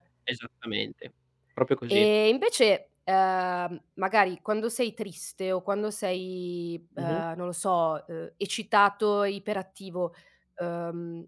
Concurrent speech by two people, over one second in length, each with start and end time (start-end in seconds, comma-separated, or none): none